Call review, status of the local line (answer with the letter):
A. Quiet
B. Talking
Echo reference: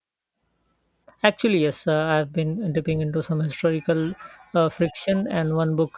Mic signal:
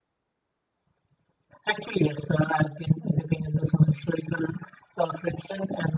A